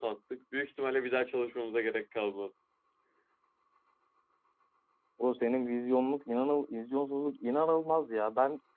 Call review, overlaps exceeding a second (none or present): none